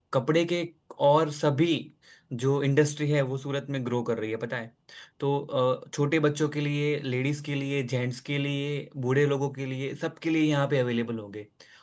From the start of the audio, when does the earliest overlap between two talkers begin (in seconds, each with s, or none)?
none